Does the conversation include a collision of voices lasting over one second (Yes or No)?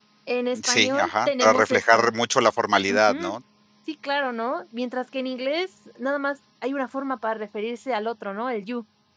Yes